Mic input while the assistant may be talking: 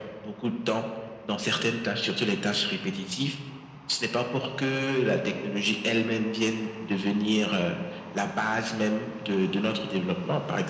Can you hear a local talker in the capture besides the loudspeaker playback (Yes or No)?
No